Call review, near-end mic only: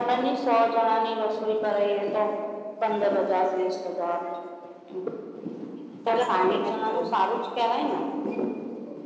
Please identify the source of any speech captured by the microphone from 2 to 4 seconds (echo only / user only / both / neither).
echo only